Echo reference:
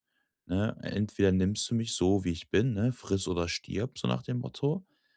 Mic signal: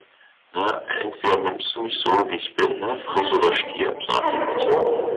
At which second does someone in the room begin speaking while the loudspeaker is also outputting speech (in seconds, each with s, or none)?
2.9 s